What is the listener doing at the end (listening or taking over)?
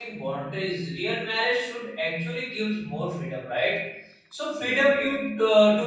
listening